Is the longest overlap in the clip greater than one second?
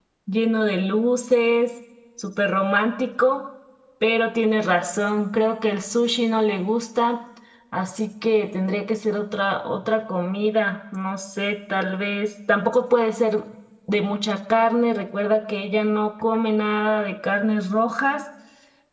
No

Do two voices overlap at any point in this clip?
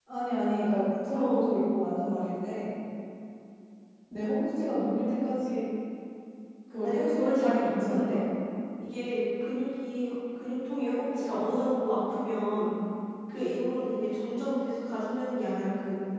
Yes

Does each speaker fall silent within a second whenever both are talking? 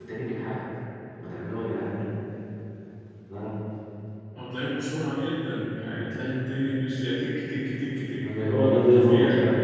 No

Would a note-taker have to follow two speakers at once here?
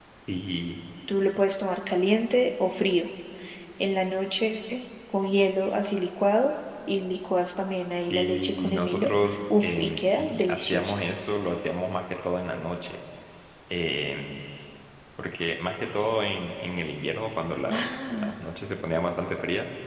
Yes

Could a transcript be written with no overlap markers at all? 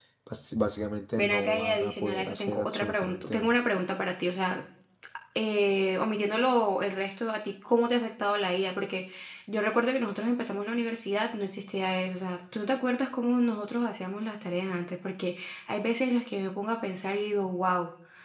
No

